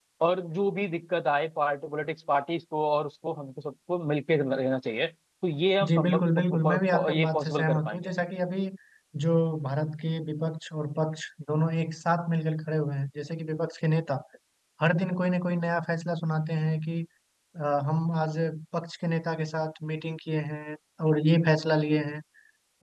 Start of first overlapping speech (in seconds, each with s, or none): 5.8 s